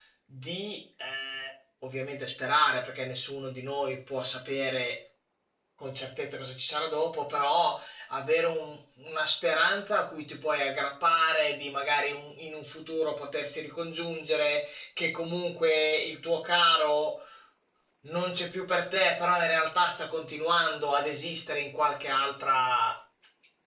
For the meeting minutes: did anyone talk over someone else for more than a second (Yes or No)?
No